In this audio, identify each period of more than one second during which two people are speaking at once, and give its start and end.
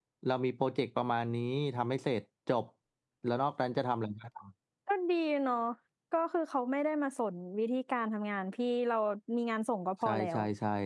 none

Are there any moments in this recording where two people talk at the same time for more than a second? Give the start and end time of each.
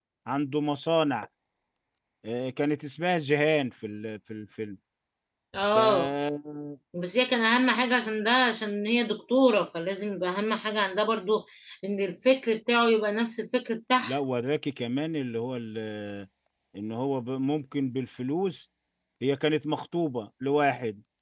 none

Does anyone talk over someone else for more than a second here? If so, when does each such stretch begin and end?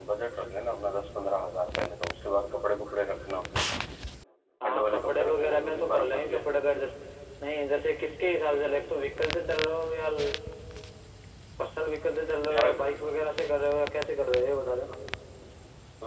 4.6-6.4

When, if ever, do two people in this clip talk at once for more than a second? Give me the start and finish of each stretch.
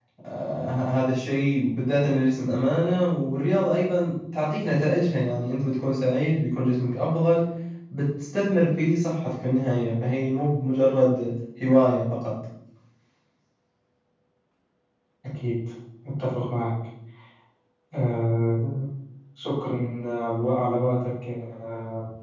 none

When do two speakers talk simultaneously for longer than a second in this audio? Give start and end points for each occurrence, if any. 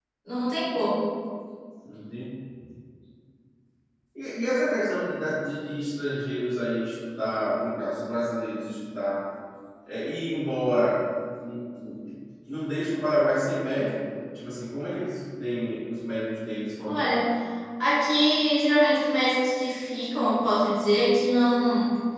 none

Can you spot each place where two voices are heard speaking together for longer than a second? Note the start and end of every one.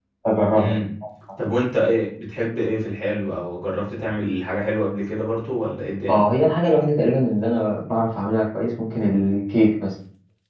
none

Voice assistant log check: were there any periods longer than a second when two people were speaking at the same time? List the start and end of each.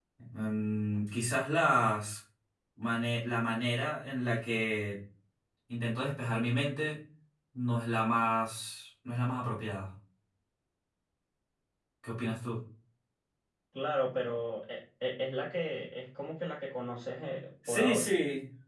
none

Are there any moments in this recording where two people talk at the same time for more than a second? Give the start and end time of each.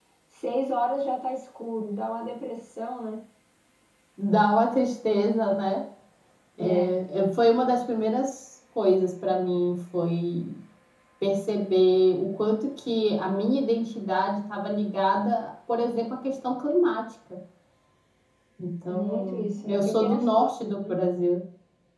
18.9-21.0

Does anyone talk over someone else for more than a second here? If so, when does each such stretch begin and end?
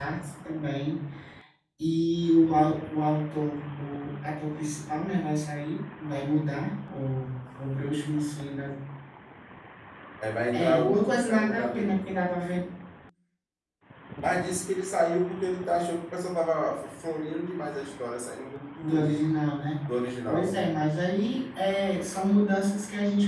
10.5-12.0

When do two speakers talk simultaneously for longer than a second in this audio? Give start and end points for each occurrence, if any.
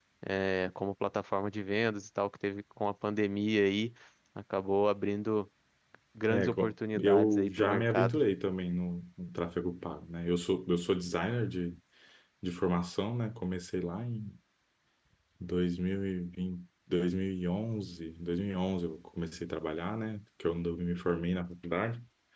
6.3-8.2

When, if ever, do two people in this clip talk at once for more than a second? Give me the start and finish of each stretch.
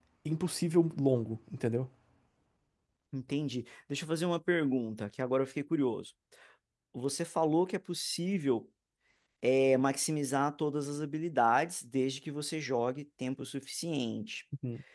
none

